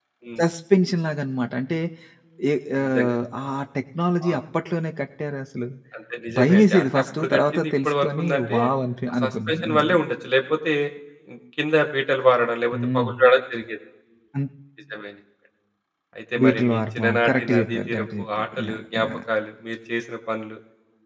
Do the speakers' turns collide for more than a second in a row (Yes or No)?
Yes